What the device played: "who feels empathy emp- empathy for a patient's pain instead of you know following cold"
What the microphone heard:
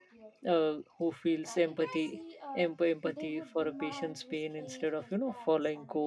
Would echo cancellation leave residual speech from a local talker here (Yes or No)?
Yes